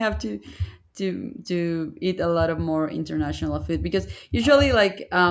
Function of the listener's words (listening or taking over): listening